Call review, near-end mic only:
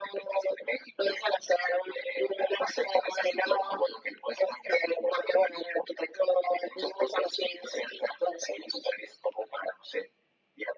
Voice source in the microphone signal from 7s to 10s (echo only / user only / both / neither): echo only